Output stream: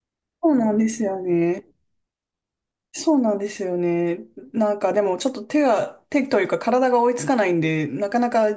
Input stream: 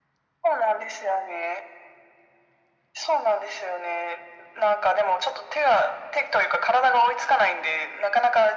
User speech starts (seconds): none

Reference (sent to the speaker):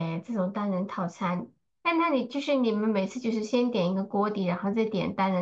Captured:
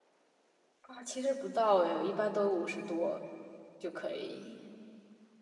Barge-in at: 0.8 s

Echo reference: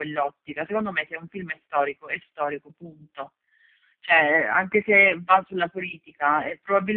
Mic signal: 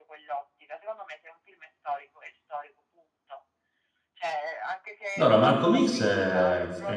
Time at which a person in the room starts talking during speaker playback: 5.2 s

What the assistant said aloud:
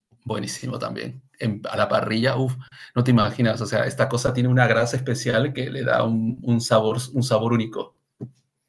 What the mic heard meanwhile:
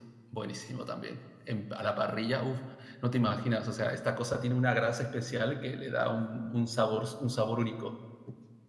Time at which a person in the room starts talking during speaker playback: none

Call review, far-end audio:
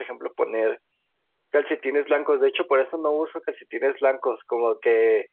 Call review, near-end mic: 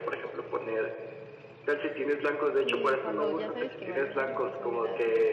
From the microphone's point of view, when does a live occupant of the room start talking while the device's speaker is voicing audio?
2.6 s

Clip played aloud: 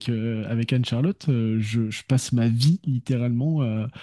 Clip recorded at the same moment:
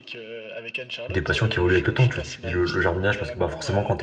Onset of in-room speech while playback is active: 1.1 s

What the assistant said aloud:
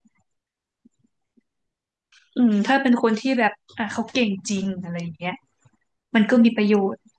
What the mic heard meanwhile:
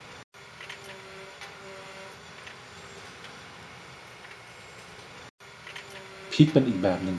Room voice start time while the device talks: 6.3 s

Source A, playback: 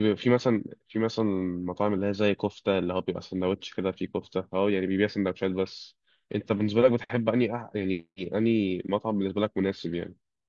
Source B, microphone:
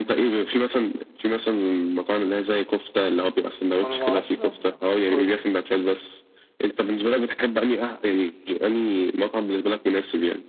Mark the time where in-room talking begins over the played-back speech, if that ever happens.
3.8 s

